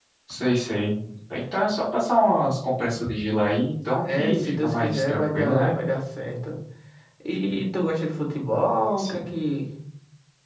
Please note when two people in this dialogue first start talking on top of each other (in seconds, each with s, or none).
4.0 s